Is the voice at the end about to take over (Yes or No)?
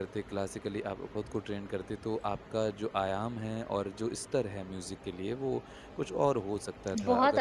Yes